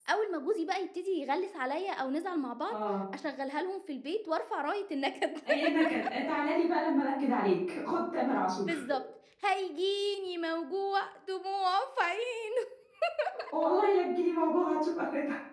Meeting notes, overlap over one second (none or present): none